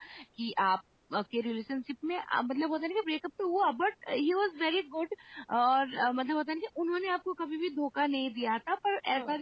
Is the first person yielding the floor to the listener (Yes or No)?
No